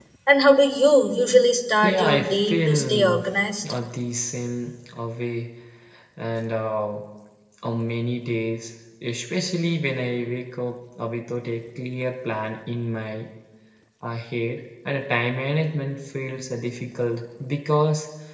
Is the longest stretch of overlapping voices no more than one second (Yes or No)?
No